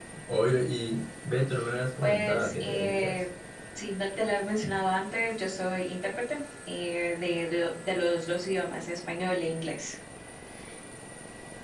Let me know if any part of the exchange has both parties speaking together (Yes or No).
Yes